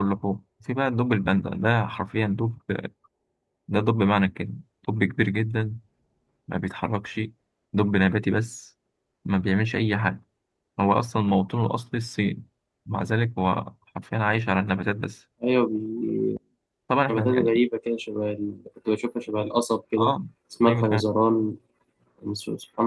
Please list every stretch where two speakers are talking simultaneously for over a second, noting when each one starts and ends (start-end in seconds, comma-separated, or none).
none